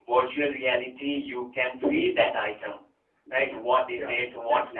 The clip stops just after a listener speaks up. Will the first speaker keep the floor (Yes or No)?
Yes